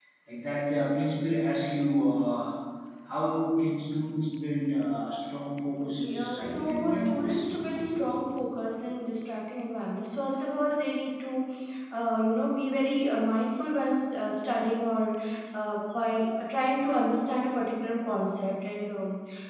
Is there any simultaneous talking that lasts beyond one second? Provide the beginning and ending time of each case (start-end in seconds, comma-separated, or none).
5.8-7.5